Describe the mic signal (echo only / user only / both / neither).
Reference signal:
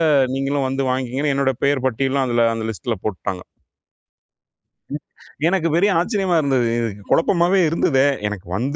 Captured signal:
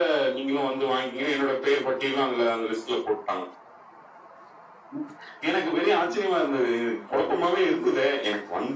echo only